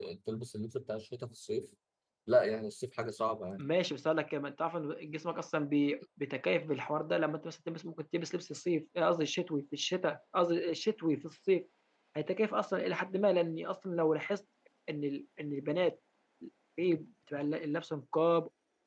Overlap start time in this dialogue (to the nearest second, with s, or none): none